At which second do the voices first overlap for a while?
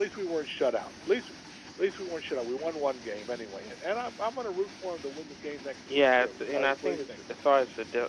5.9 s

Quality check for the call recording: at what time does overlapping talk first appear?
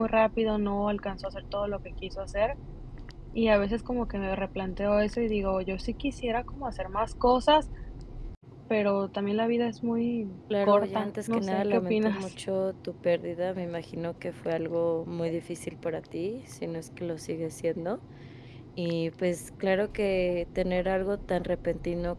10.5 s

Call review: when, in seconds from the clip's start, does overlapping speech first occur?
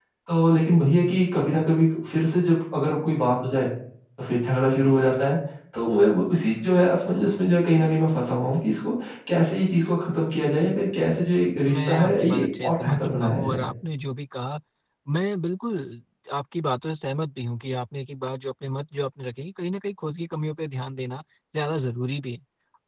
11.6 s

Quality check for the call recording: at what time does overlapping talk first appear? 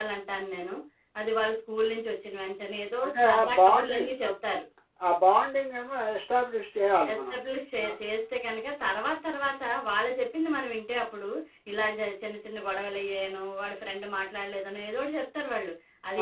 3.0 s

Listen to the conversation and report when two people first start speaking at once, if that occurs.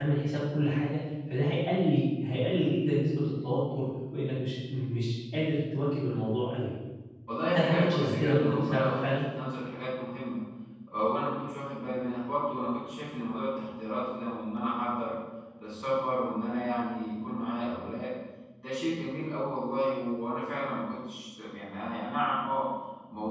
7.5 s

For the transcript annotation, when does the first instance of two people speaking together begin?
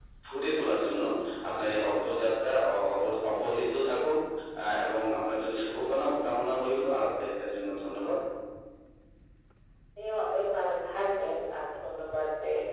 none

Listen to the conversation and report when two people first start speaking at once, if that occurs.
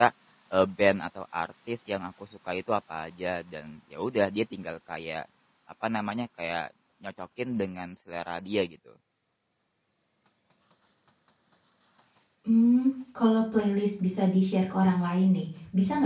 none

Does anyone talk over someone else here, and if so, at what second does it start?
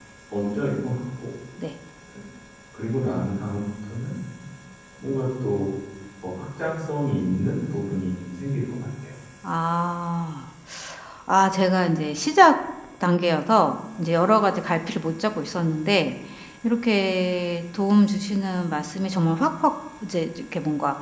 none

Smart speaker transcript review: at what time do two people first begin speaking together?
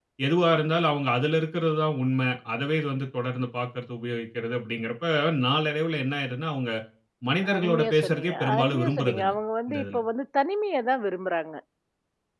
7.5 s

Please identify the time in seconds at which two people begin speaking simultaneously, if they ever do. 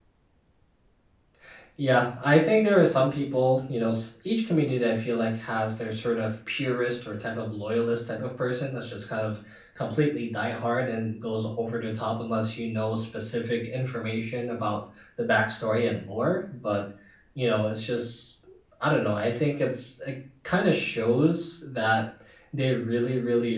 none

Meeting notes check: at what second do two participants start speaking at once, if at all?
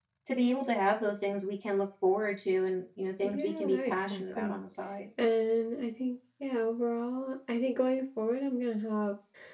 3.2 s

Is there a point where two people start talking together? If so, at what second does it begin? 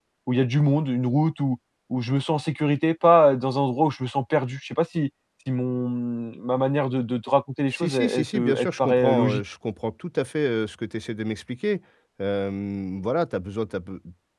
7.7 s

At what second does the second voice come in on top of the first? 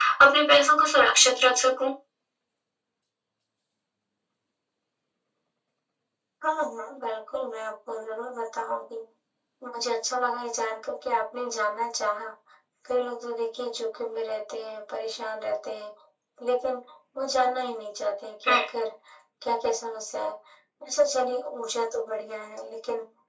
none

